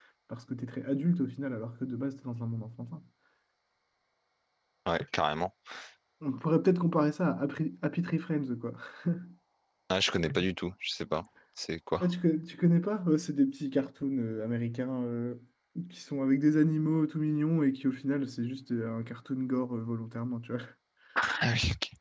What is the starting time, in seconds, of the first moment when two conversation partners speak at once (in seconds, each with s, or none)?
none